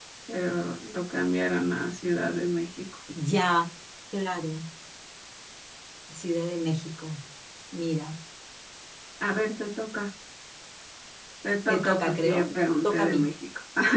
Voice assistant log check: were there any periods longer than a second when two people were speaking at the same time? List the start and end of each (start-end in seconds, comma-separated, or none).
11.7-13.3